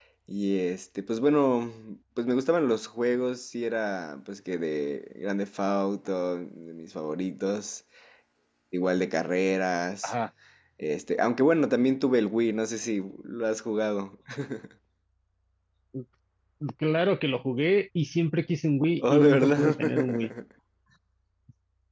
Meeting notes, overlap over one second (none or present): present